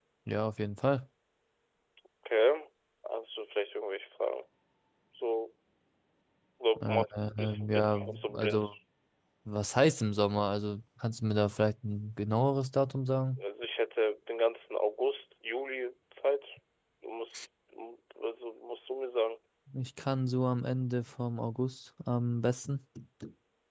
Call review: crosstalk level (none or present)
present